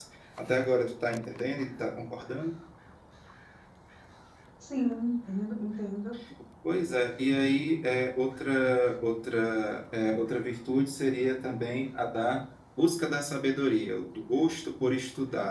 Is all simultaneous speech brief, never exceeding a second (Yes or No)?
Yes